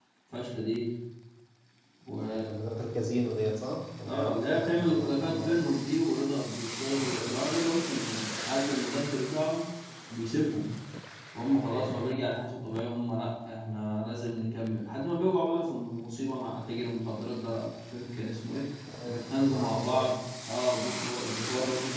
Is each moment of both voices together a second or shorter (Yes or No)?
No